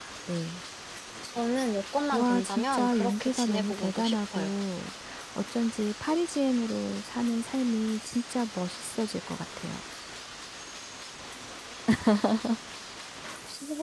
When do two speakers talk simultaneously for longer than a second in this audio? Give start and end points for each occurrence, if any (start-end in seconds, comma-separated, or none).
2.1-4.5